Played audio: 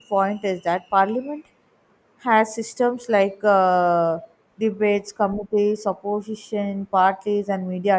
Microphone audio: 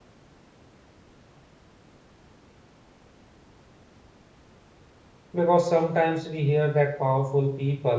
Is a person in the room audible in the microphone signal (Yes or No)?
Yes